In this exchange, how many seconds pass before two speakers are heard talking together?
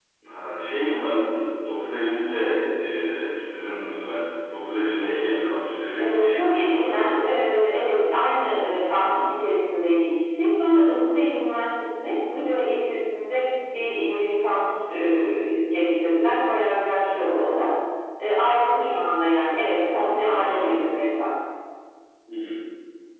6.0 s

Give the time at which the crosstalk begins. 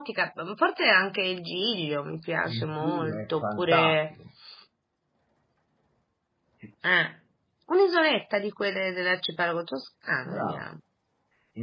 2.5 s

